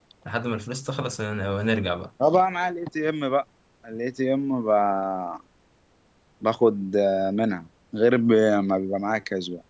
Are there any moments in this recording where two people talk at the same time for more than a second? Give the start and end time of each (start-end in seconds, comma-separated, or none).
none